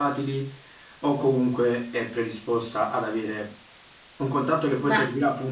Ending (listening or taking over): listening